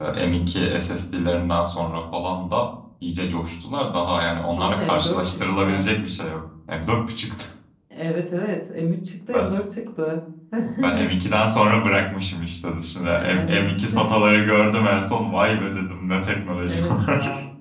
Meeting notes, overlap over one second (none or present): present